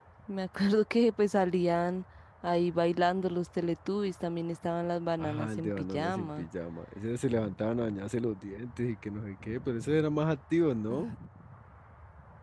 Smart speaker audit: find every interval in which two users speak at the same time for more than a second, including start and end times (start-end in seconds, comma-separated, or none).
5.2-6.5